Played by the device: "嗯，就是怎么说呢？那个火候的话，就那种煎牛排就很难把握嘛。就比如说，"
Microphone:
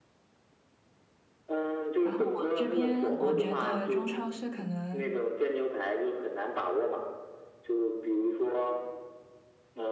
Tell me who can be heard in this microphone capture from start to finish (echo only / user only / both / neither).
both